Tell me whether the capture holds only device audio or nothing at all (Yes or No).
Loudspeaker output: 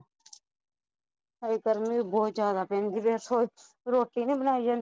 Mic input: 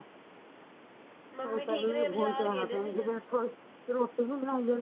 No